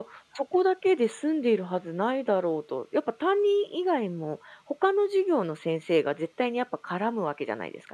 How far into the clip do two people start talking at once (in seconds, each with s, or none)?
none